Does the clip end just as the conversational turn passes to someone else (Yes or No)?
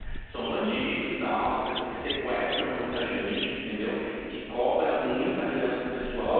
Yes